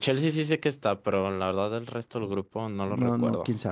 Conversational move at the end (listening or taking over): taking over